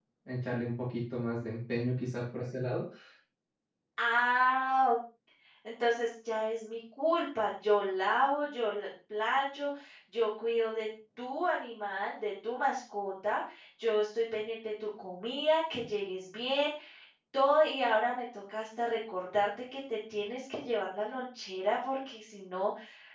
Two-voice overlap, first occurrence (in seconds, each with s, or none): none